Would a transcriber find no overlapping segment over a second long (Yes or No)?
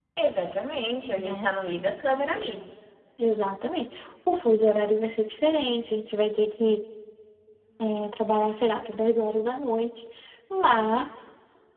Yes